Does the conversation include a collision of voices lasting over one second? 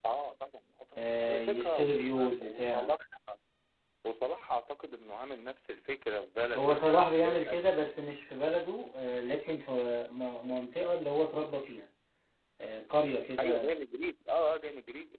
Yes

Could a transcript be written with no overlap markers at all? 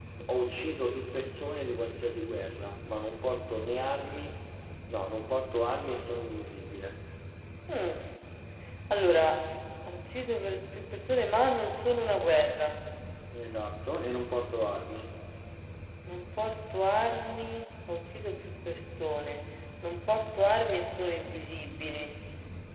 Yes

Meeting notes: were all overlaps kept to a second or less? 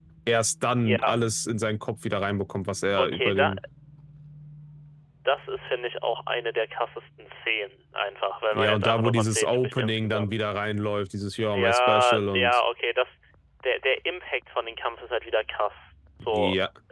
No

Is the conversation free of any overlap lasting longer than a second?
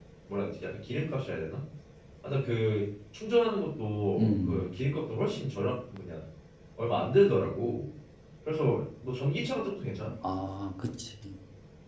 Yes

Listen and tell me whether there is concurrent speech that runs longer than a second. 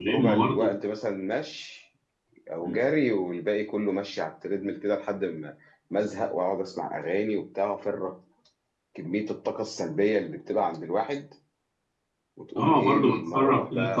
Yes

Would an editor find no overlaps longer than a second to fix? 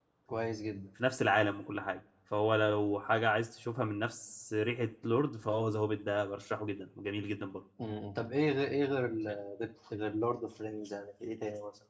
Yes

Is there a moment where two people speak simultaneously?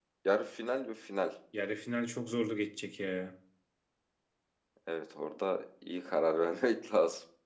No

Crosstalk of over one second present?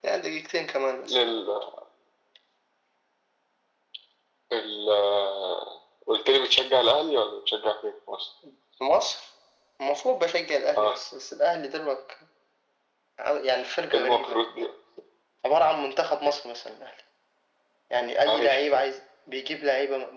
No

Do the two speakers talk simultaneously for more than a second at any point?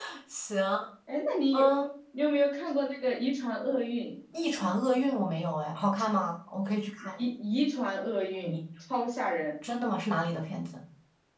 No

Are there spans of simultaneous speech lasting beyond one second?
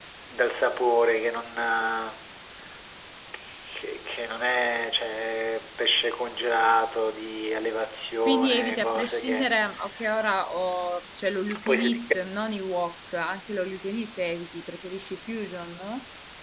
Yes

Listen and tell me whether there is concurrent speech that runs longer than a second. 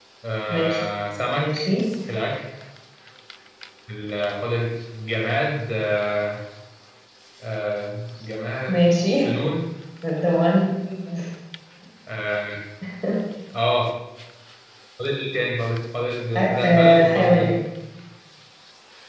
Yes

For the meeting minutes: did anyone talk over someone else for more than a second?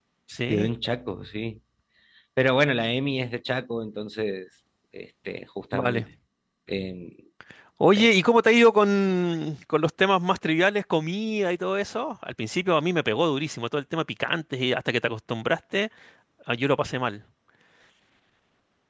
No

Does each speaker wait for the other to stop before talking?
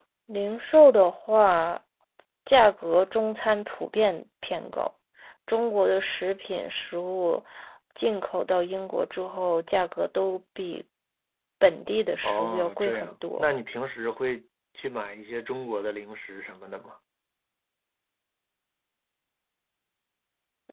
No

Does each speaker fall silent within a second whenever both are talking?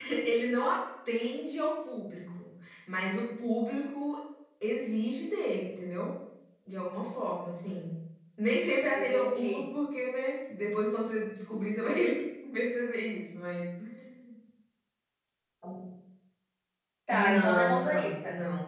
No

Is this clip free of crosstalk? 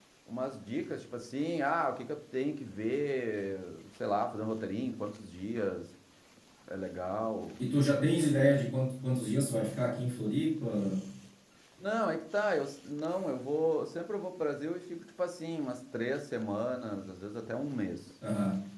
Yes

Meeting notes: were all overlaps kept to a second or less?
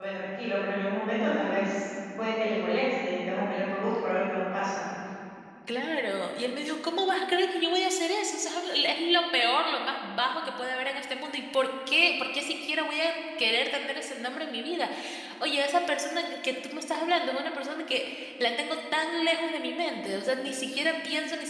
Yes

